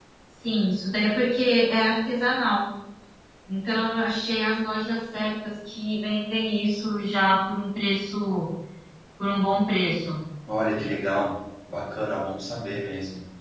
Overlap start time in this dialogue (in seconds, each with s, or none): none